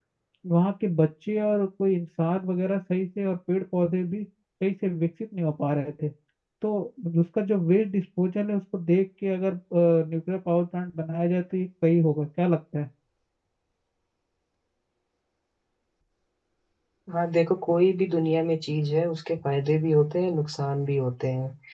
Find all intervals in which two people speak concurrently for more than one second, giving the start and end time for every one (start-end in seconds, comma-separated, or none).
none